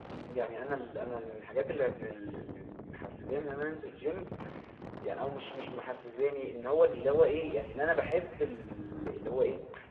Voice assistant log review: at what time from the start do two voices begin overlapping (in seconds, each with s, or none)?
none